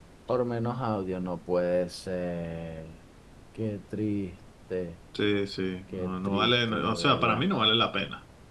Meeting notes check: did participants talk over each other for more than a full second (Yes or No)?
Yes